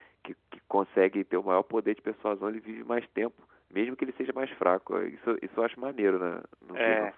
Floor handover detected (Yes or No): Yes